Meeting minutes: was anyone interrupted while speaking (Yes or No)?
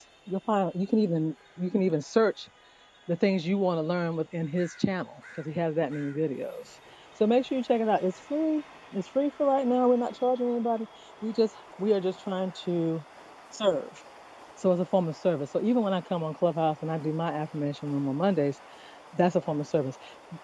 No